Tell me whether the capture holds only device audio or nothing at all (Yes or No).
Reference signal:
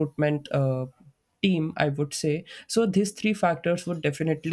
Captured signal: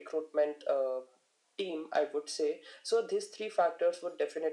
Yes